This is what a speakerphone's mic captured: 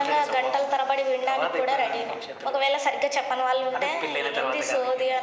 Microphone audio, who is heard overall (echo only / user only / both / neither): echo only